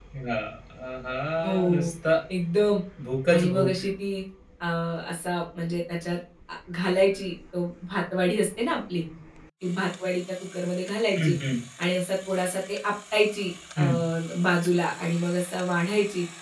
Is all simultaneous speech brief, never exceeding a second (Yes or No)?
Yes